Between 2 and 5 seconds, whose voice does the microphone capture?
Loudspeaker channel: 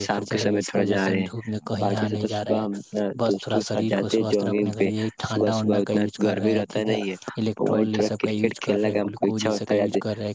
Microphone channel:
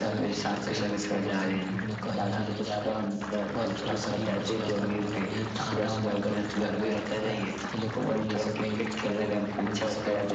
echo only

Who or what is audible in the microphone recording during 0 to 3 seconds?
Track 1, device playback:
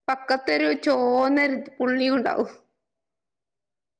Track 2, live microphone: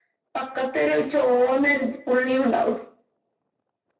echo only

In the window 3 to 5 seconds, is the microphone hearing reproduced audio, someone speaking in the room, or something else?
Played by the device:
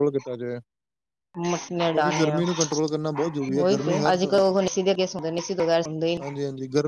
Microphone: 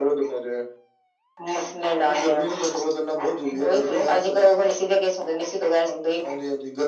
echo only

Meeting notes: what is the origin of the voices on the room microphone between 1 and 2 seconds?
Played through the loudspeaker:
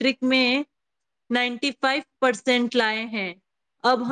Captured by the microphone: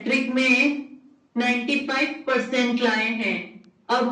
echo only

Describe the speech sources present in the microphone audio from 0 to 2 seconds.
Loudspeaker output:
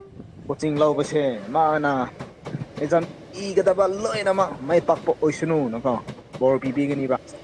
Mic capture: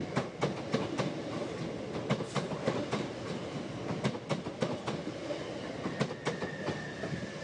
neither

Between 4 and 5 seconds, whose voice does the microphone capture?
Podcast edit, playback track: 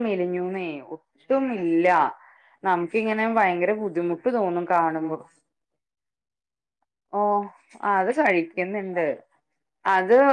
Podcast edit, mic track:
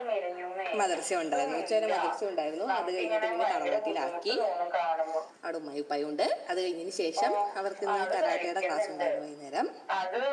both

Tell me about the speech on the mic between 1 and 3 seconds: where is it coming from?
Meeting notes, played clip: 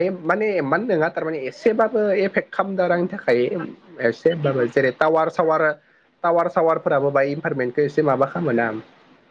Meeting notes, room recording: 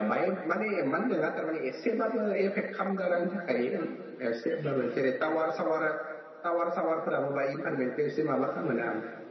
echo only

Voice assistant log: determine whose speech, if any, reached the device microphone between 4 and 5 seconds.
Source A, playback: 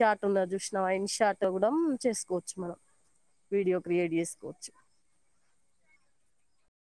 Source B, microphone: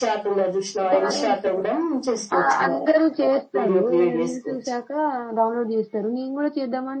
both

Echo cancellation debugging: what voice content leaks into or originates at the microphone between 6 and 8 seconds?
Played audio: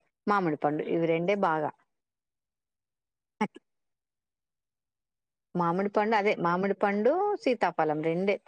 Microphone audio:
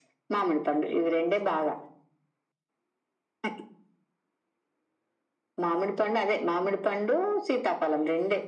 echo only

